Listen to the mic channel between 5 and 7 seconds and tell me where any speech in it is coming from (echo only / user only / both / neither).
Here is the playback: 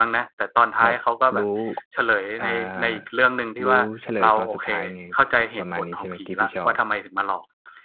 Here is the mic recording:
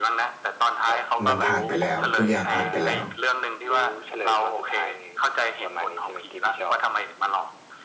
echo only